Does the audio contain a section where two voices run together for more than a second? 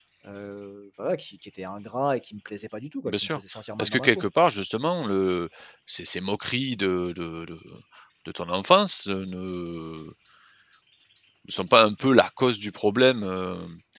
No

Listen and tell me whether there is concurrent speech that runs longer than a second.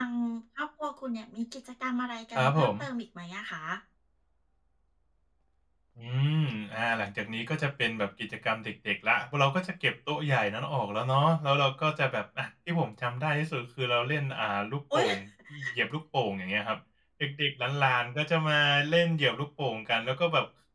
No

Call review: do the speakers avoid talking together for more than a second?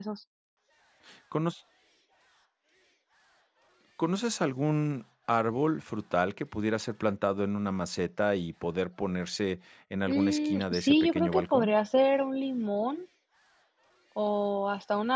No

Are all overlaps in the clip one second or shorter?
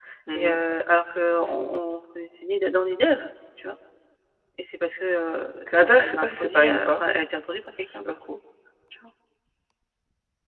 No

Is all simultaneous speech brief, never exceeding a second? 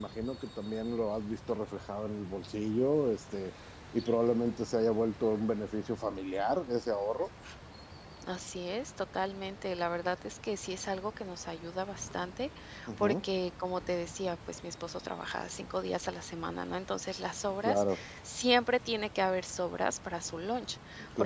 Yes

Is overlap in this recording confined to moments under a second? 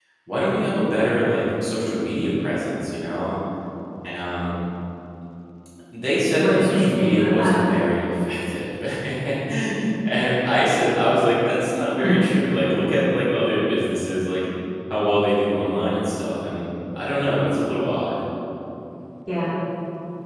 No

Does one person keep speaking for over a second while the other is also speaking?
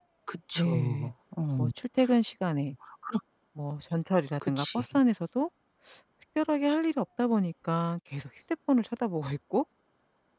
No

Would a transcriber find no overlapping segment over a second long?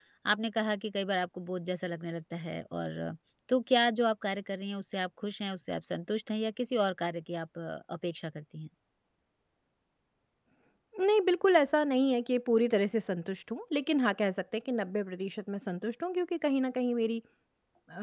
Yes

